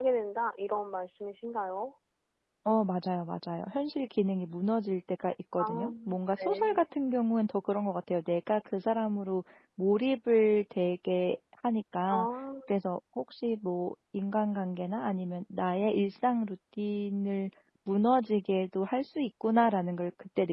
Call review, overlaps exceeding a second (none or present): none